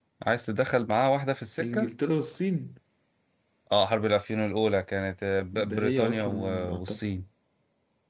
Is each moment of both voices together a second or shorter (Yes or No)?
No